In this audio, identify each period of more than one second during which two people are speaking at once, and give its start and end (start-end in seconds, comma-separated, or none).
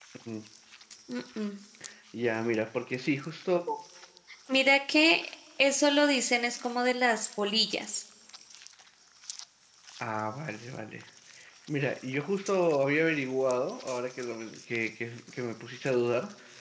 none